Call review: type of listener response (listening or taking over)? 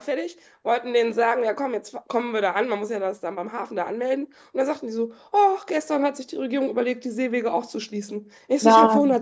listening